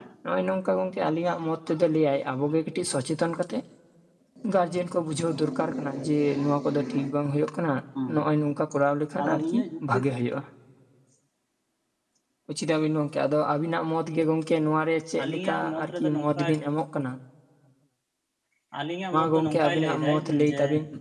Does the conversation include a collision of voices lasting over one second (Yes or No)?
Yes